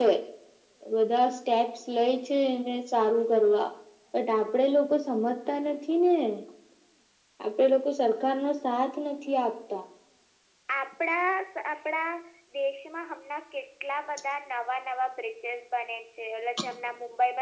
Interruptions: none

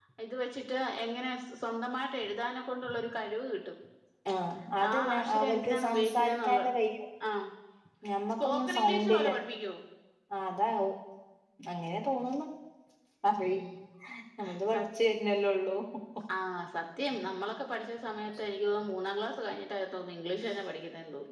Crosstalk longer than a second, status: present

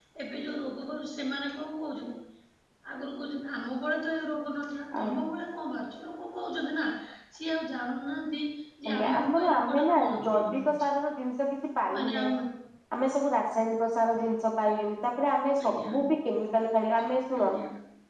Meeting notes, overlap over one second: present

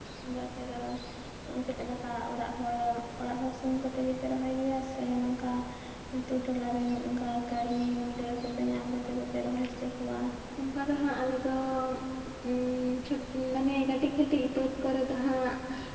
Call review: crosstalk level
none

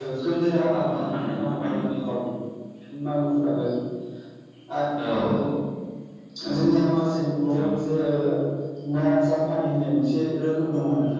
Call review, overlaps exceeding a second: present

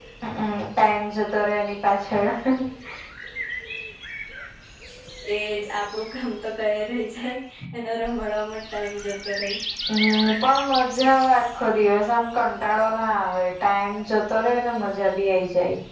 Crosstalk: none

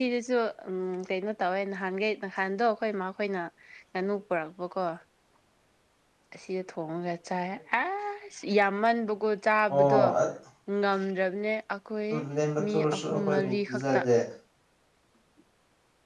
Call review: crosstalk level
present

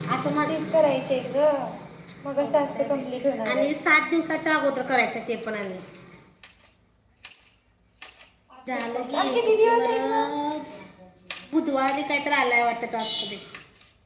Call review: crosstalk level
present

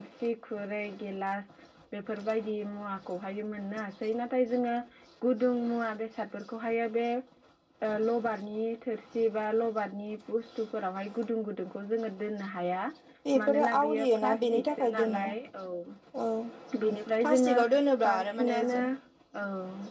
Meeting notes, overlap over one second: present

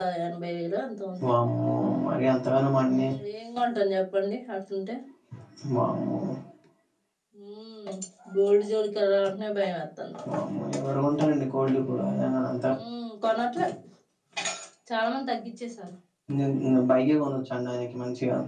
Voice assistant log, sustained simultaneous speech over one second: none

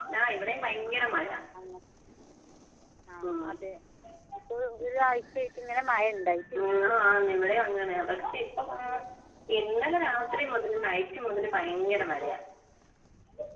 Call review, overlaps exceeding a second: none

